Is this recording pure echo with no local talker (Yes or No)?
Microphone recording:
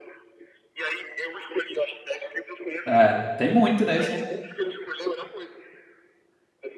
No